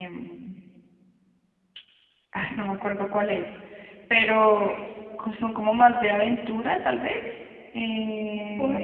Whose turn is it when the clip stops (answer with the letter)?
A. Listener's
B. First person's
A